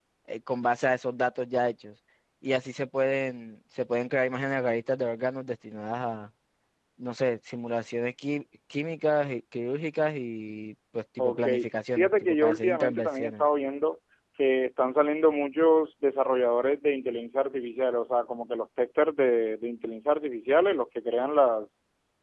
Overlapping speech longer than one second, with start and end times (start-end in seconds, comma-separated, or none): 11.9-13.4